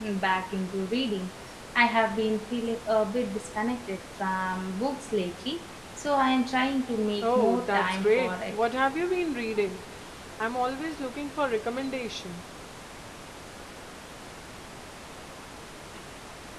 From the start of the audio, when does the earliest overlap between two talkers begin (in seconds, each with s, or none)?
7.2 s